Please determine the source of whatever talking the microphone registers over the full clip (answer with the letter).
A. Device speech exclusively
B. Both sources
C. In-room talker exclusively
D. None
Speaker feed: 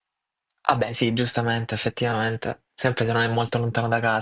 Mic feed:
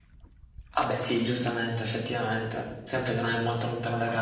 A